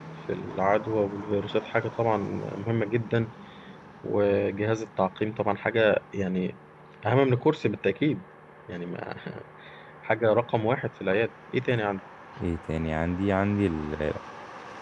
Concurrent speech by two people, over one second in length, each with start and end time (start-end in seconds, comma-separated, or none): none